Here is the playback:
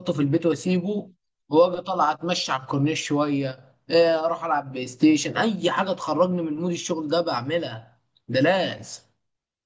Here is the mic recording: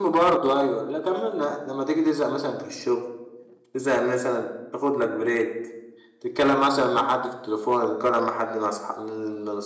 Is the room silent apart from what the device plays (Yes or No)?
No